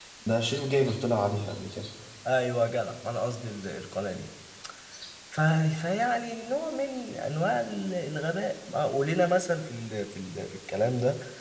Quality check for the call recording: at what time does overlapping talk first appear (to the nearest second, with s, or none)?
none